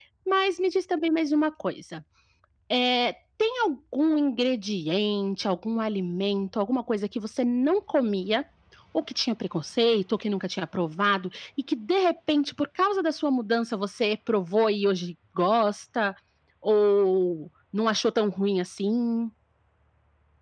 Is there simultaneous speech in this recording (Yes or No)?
No